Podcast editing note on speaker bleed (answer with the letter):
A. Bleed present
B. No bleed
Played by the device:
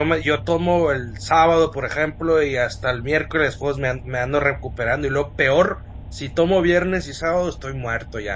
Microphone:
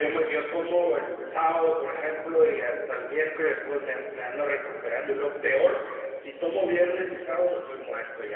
A